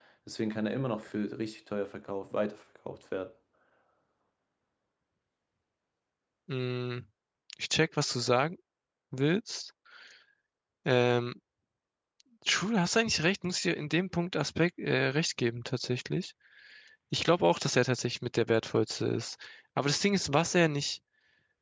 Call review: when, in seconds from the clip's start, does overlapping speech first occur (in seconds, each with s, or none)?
none